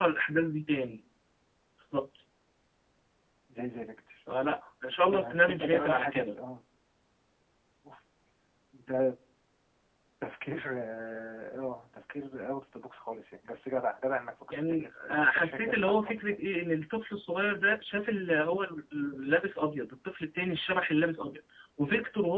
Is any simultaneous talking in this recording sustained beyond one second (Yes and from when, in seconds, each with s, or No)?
Yes, from 5.1 s